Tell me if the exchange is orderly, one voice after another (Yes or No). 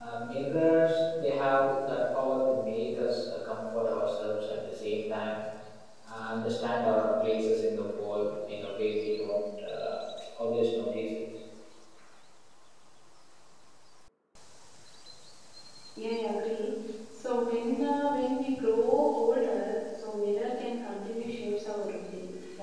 Yes